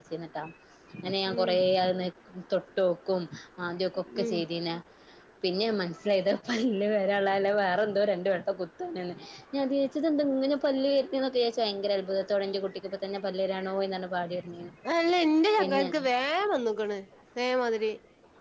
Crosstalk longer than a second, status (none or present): none